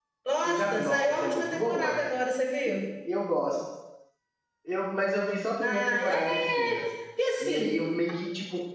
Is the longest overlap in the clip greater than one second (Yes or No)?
Yes